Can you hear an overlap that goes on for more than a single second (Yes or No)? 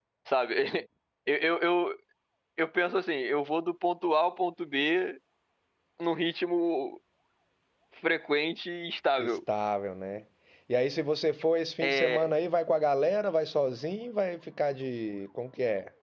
No